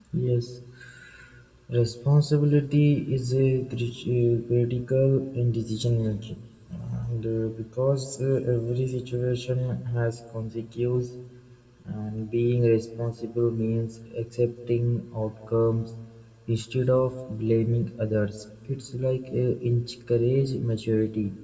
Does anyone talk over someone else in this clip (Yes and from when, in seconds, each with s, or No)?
No